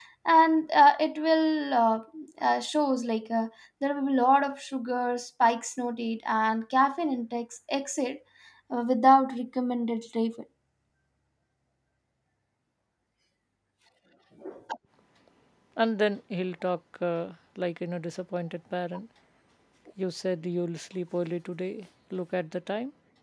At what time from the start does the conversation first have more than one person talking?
none

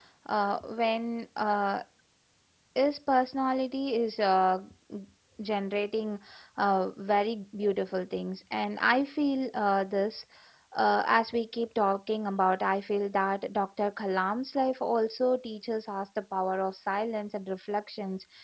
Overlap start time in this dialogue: none

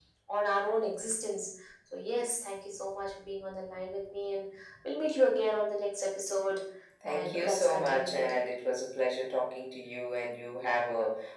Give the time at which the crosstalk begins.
7.1 s

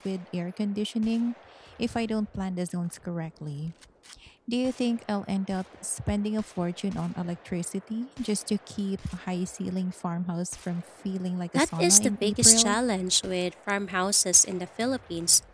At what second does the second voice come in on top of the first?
11.6 s

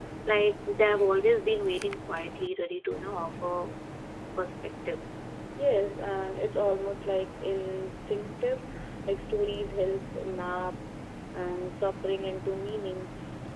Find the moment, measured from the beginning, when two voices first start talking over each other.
none

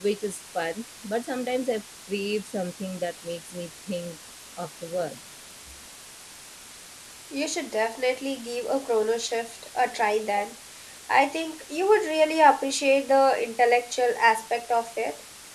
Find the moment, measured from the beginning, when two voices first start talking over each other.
none

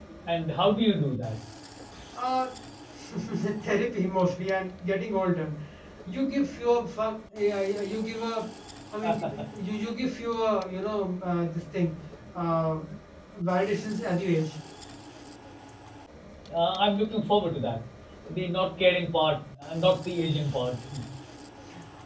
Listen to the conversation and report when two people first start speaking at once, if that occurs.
none

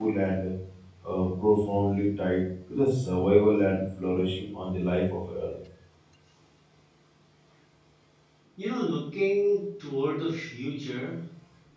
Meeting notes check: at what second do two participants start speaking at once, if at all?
none

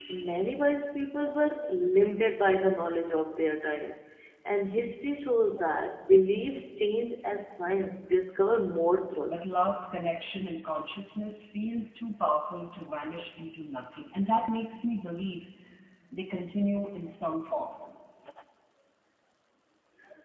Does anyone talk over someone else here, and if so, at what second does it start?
none

